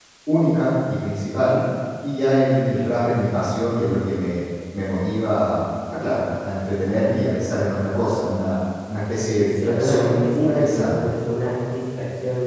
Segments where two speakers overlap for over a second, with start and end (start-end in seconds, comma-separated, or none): 9.4-11.0